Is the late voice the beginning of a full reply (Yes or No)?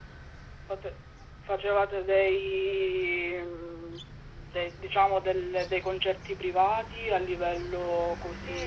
Yes